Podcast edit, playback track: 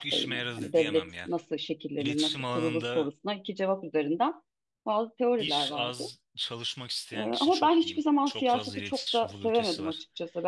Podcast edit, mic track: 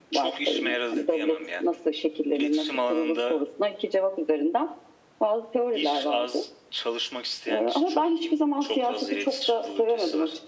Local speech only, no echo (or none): none